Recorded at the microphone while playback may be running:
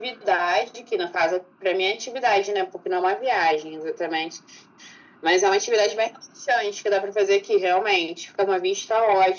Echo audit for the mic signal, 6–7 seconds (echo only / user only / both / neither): echo only